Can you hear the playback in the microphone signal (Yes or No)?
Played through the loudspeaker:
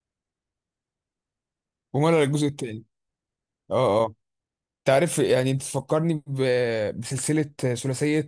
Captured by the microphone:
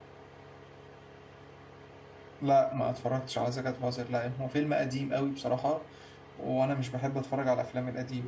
No